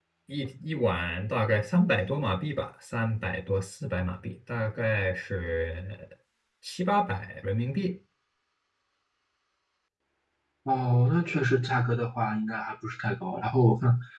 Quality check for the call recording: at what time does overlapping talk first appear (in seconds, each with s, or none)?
none